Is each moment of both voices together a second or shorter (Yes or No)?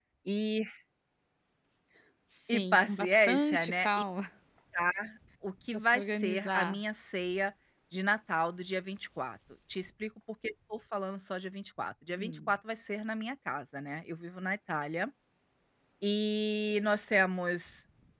No